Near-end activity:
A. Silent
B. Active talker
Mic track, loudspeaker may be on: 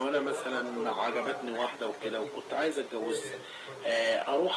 B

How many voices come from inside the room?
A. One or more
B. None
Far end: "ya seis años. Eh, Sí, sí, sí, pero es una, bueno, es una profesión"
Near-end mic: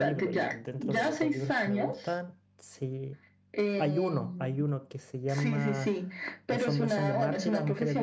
A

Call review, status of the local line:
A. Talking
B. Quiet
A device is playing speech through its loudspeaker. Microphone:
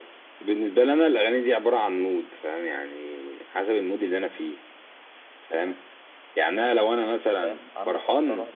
A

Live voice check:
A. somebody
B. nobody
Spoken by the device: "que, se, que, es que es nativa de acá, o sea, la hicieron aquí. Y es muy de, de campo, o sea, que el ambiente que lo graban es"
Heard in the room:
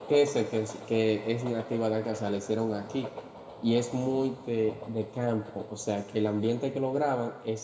B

